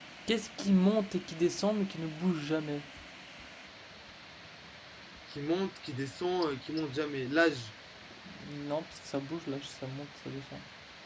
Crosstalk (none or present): none